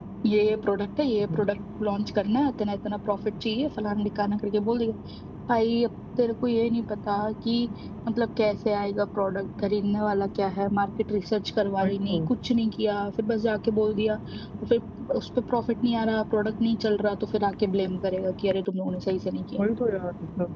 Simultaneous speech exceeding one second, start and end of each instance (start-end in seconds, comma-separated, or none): none